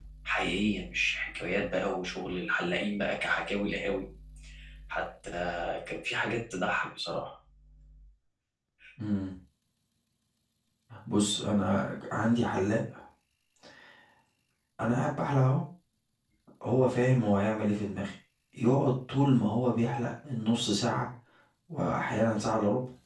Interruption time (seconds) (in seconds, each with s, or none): none